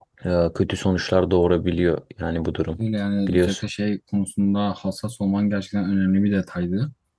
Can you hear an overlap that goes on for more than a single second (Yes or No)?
No